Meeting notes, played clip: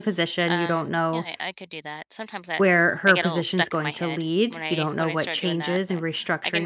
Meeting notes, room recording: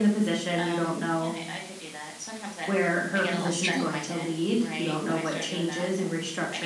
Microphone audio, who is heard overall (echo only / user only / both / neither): both